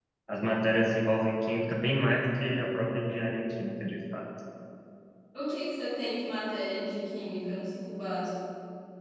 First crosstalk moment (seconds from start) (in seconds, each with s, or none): none